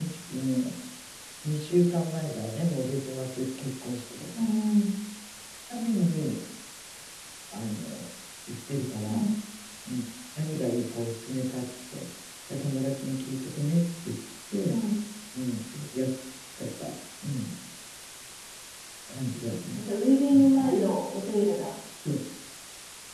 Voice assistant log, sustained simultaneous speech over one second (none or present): none